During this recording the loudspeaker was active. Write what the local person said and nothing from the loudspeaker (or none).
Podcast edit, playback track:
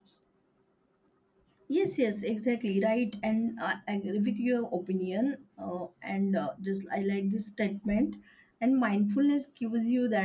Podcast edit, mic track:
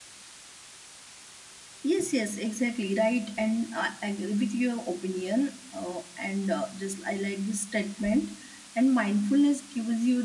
none